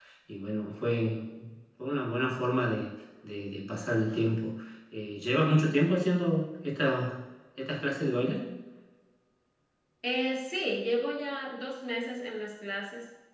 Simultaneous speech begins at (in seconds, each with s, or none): none